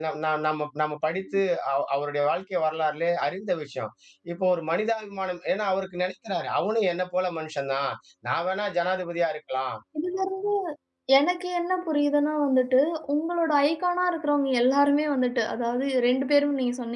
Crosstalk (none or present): none